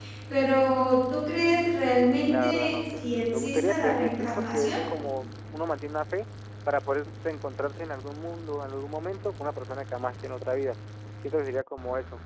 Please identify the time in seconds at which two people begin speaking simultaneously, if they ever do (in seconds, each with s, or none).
2.2 s